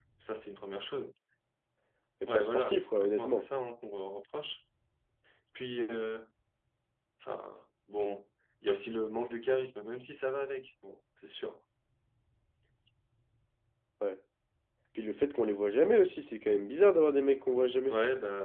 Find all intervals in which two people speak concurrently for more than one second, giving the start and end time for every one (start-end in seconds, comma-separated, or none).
2.2-3.5